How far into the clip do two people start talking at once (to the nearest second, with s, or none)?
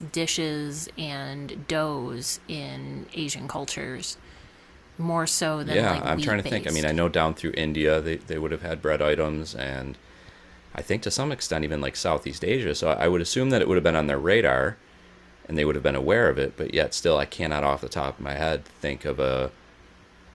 6 s